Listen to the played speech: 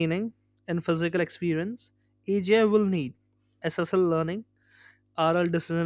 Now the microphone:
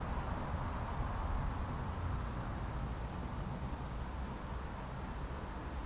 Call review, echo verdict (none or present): none